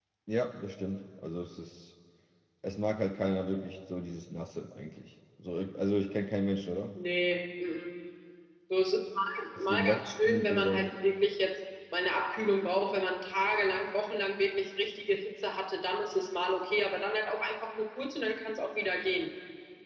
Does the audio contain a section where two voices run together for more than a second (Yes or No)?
Yes